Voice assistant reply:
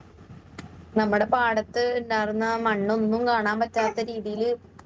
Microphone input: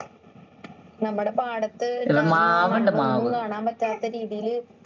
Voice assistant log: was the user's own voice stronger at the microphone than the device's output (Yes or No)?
Yes